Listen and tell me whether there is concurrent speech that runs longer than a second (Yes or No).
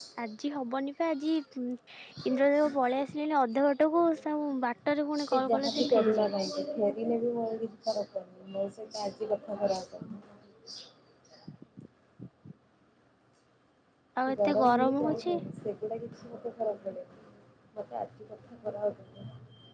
Yes